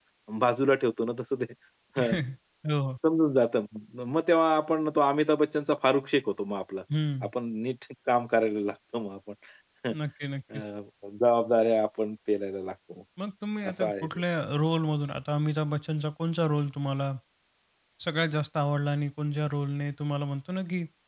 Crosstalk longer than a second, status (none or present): none